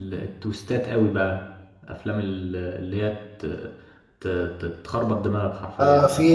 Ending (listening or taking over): taking over